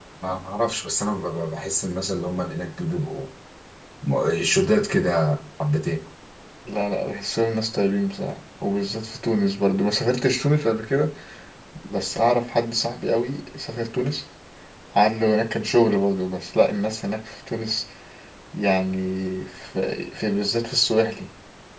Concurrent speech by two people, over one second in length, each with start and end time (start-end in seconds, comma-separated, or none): none